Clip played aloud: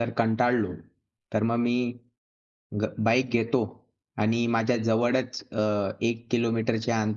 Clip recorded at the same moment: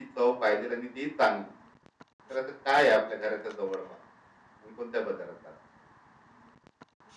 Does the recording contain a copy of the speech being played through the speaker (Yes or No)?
No